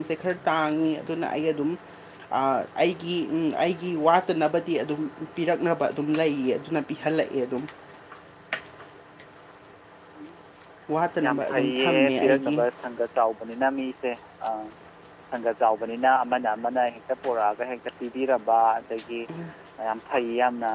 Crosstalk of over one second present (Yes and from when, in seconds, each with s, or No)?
Yes, from 11.2 s